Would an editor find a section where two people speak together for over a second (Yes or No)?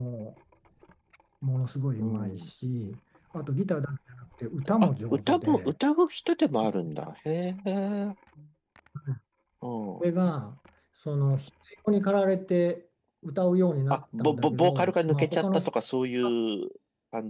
Yes